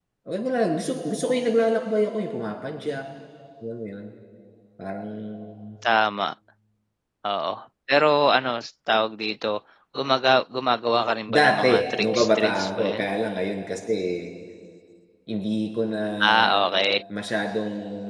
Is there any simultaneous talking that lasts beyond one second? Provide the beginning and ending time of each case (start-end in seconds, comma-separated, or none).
11.3-13.1